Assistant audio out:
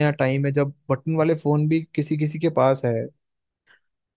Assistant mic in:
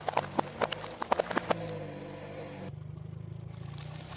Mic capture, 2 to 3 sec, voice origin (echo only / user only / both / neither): neither